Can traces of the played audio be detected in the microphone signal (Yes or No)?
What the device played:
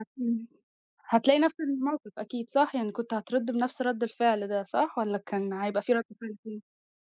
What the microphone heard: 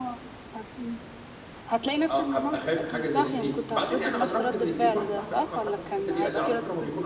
Yes